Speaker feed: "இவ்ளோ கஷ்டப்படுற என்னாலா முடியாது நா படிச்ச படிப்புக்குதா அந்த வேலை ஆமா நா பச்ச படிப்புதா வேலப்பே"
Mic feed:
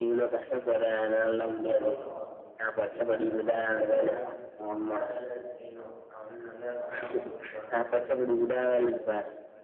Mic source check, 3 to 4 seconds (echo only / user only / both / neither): both